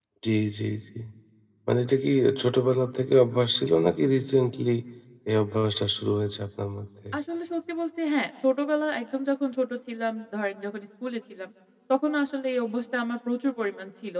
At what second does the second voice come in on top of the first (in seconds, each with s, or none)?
none